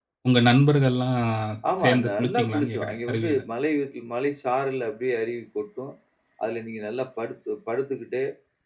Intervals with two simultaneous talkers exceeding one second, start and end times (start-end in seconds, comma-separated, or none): 1.8-3.4